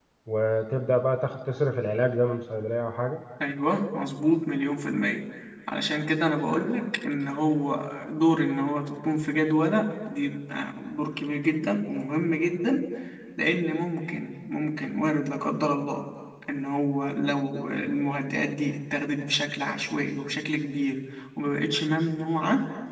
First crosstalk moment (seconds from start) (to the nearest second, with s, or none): none